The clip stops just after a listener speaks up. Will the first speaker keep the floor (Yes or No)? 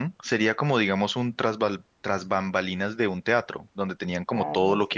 Yes